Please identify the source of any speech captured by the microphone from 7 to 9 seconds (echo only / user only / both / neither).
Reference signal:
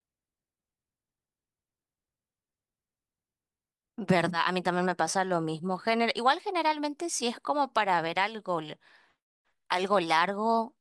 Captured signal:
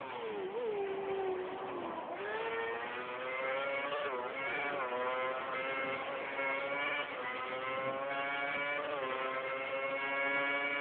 neither